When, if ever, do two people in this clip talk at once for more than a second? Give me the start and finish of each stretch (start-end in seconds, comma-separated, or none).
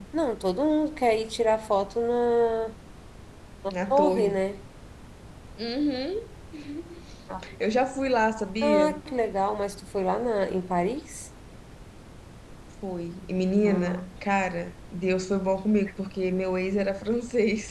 none